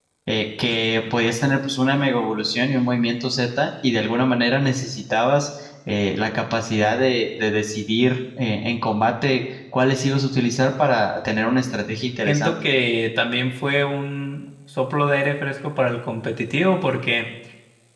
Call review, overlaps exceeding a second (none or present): none